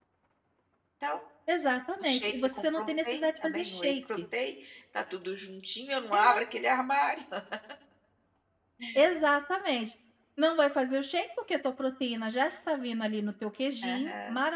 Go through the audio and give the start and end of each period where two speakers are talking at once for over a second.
2.0-4.2

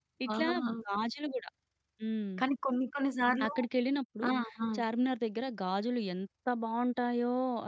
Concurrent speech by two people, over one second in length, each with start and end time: none

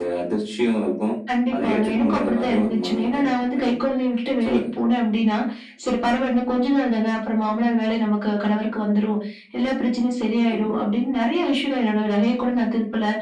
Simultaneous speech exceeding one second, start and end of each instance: 1.5-3.8

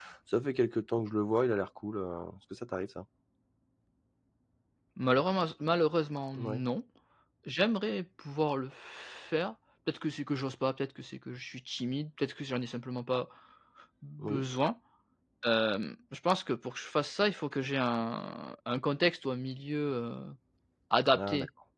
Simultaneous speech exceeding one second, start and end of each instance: none

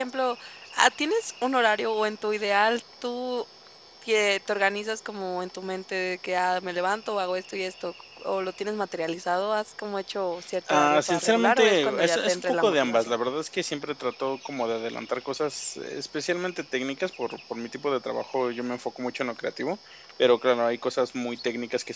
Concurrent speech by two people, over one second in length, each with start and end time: 10.7-13.2

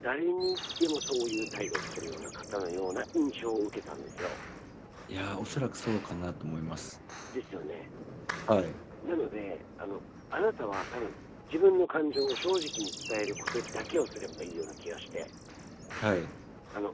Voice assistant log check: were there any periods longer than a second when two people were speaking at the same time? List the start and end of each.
none

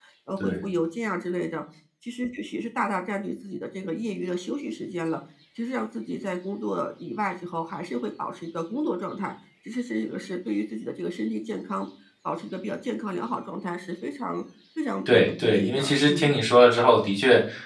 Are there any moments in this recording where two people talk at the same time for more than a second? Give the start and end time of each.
15.1-16.4

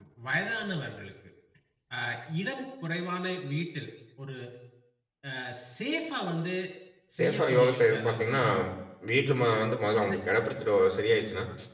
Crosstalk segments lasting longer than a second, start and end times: 7.2-8.4

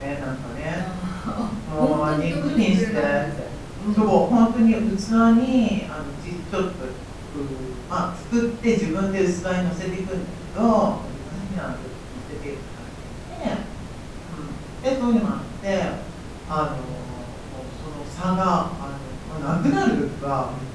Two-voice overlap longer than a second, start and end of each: 1.8-3.2

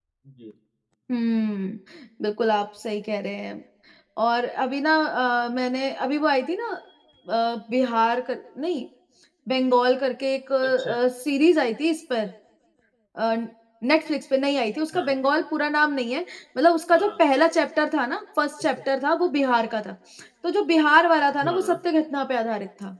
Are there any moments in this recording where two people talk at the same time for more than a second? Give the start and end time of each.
none

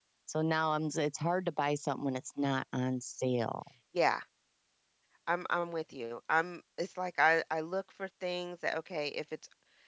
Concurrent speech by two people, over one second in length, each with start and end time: none

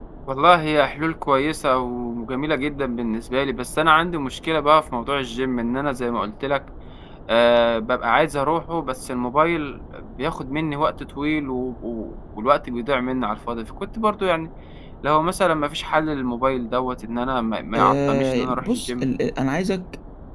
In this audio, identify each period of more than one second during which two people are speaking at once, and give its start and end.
17.8-19.0

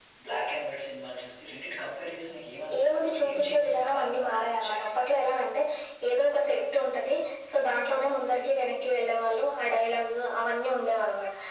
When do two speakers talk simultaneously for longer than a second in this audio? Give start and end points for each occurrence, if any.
2.8-4.9

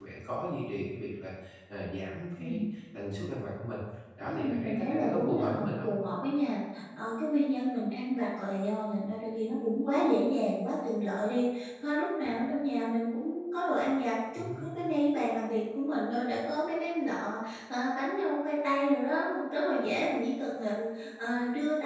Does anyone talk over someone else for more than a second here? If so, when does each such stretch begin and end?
4.2-5.9

